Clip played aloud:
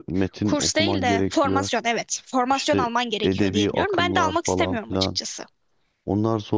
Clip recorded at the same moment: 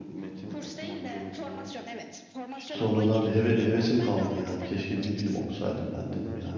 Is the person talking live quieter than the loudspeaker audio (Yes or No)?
No